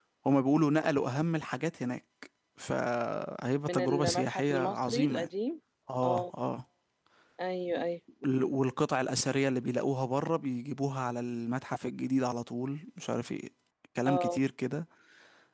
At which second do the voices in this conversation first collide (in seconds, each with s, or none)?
3.7 s